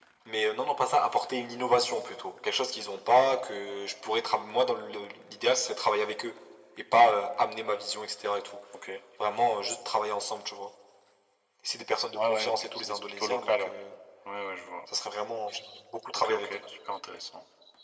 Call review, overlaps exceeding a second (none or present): present